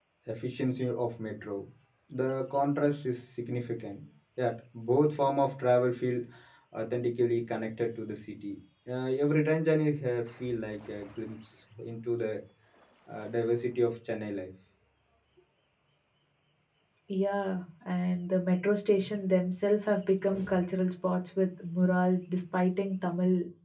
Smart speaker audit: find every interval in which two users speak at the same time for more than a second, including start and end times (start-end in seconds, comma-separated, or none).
none